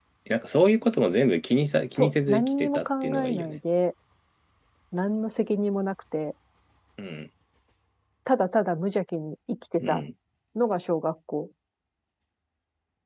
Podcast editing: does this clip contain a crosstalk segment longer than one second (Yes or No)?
Yes